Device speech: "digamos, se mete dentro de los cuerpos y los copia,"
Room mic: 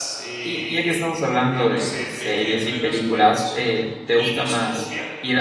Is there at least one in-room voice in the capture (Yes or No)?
Yes